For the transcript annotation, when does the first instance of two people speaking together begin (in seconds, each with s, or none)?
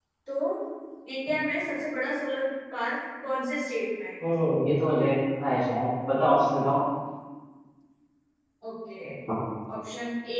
none